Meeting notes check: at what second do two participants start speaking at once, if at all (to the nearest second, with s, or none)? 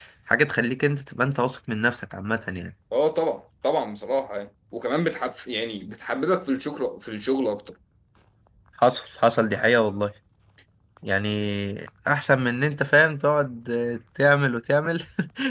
none